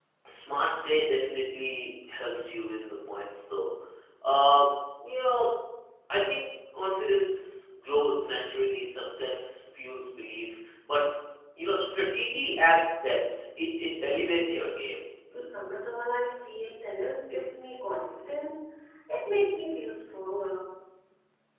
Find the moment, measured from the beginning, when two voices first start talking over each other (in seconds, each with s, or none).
none